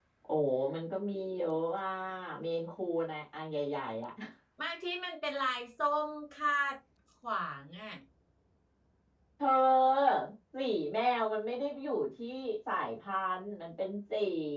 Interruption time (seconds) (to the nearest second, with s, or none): none